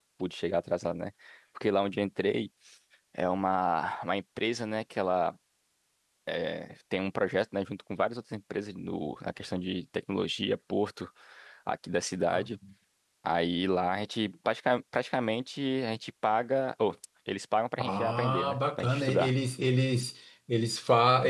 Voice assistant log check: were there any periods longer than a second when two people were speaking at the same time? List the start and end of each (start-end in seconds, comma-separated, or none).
17.8-19.3